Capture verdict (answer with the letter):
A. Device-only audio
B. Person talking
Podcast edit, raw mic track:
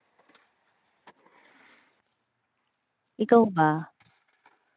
B